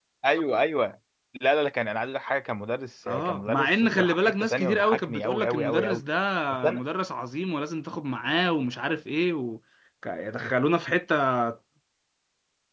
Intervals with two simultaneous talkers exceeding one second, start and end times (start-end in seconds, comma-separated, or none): 3.1-6.0